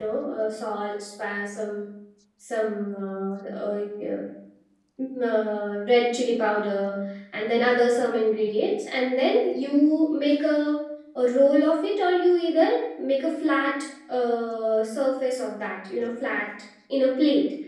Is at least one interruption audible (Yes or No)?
No